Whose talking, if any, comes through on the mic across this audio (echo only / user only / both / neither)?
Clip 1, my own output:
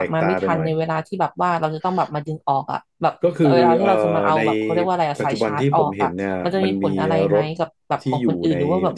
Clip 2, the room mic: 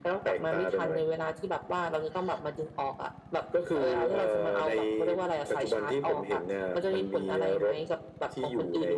echo only